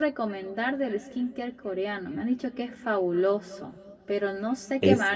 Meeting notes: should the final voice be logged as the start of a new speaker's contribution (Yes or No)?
No